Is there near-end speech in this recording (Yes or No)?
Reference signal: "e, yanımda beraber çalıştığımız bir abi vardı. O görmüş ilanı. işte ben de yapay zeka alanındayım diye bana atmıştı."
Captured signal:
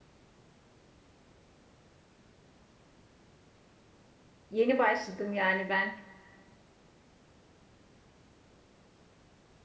Yes